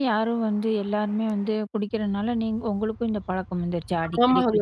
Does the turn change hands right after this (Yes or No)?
Yes